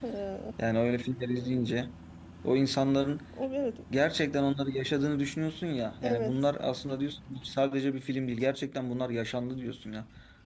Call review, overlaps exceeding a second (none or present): none